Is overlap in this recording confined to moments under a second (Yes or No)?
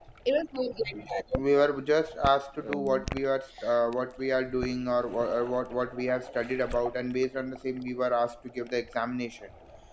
Yes